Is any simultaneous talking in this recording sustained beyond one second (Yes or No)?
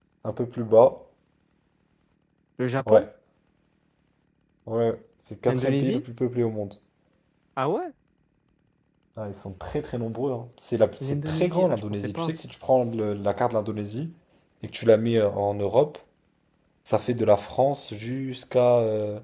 Yes